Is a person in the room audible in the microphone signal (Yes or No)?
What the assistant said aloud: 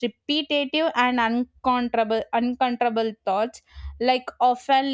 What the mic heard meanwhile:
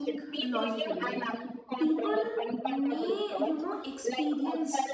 Yes